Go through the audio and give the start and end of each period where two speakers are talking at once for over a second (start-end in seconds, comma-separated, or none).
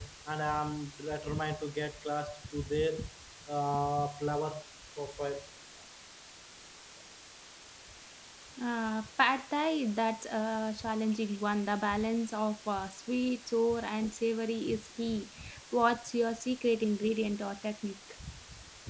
none